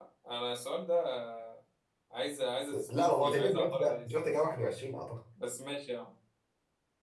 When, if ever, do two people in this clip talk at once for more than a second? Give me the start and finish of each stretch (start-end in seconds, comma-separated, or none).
3.0-4.3